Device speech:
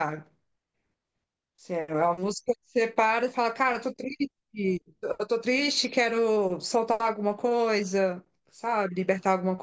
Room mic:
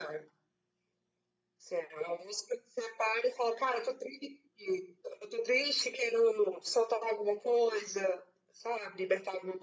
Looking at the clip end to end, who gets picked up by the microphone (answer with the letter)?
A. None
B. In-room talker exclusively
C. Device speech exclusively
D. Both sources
C